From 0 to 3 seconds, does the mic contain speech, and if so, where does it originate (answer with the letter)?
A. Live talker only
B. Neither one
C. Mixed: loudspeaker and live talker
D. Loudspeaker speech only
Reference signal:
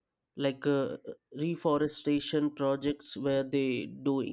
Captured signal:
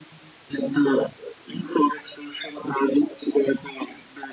D